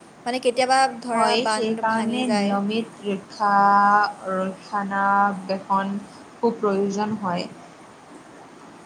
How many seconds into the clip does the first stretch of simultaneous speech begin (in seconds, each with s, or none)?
1.1 s